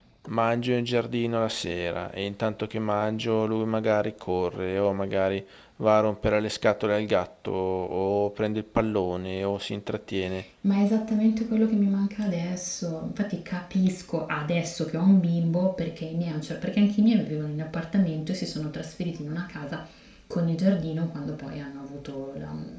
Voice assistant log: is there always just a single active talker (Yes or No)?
Yes